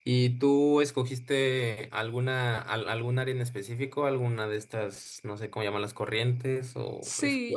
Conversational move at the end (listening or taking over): taking over